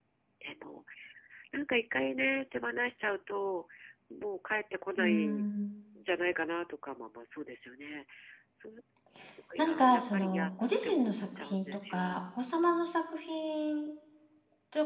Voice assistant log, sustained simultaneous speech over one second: present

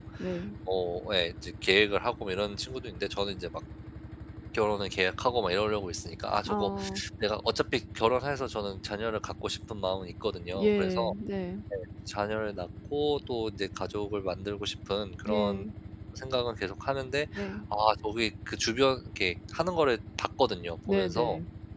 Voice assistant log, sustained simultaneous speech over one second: none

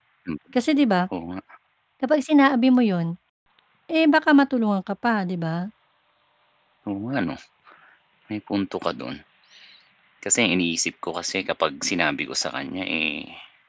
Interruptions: none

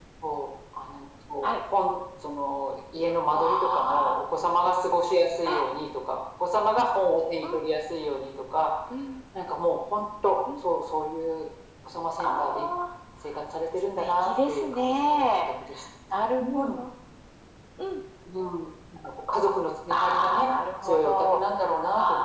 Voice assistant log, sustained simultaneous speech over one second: present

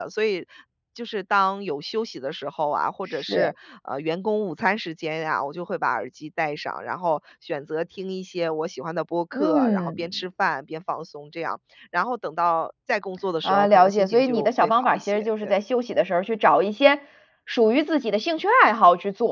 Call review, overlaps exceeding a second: present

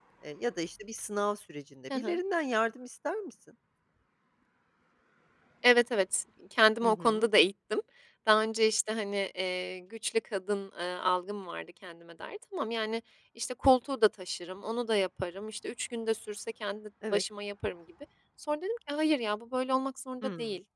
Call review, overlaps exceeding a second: none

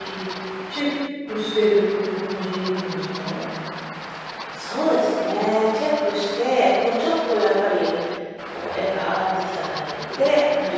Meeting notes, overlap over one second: none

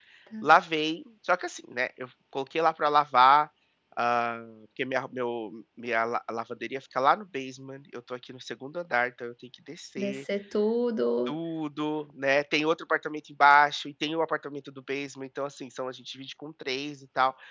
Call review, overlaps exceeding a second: none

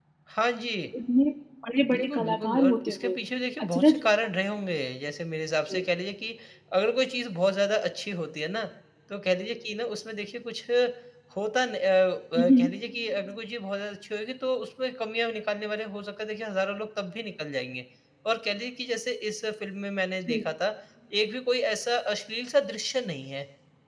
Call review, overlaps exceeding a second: present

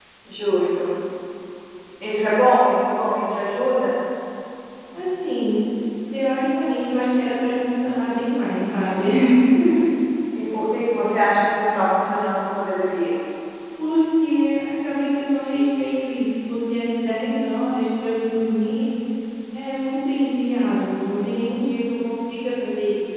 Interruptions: none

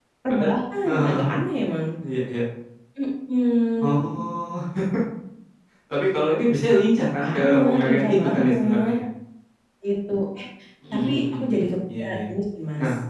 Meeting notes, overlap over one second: present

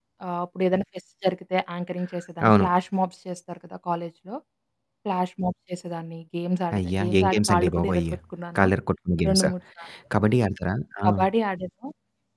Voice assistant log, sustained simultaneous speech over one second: present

